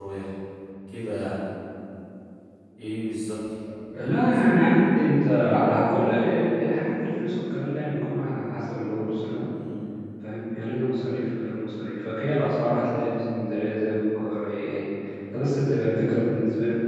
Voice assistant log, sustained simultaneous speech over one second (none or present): none